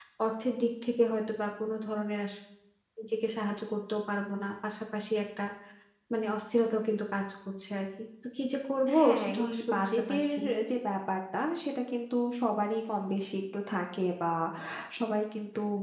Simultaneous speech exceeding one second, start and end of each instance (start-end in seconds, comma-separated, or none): 9.0-10.3